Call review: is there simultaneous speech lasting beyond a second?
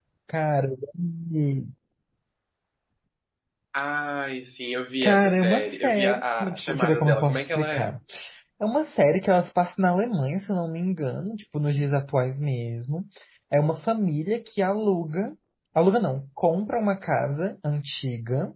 Yes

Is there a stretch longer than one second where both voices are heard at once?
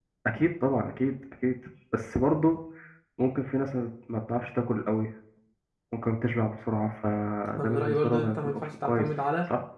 Yes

